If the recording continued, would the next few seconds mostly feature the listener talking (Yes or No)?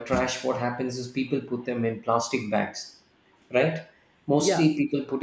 No